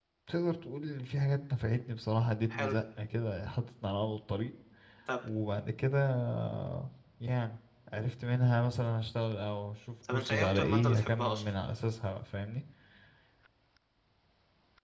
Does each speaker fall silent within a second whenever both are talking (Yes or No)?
No